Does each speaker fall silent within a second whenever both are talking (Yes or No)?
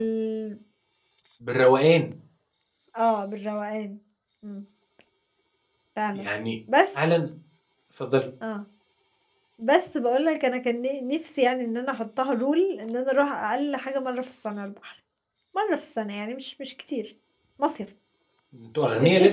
Yes